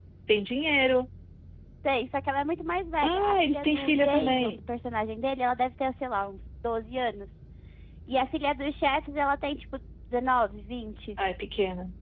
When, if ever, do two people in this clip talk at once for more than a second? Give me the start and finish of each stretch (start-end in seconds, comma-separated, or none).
3.0-4.6